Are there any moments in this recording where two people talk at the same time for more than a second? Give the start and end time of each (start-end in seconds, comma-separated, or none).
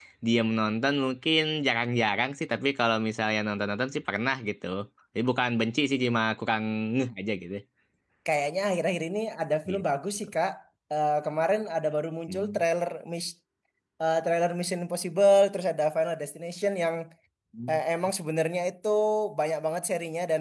none